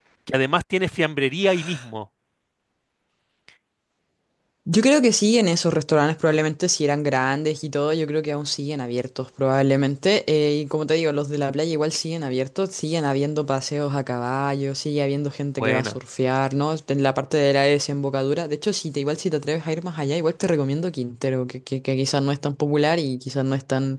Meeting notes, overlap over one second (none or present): none